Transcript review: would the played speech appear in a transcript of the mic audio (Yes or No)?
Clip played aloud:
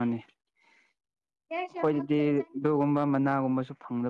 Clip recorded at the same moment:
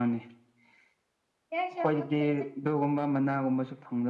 Yes